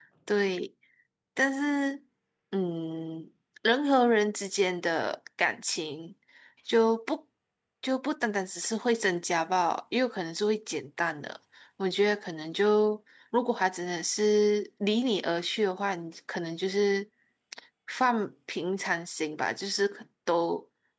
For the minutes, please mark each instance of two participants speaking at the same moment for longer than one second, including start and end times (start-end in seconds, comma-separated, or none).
none